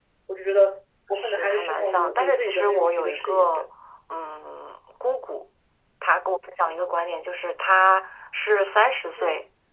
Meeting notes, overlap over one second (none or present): present